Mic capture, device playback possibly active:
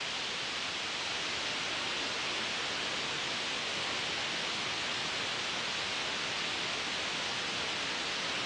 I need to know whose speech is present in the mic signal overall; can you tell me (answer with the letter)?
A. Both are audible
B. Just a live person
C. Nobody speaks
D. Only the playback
C